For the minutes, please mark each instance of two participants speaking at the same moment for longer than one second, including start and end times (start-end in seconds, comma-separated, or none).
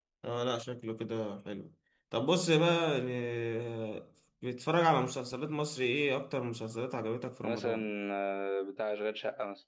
none